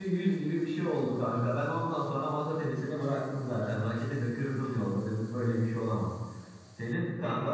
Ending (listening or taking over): listening